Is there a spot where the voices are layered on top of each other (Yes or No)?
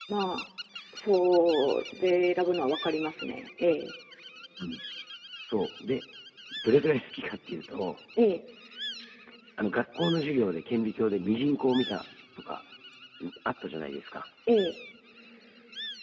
No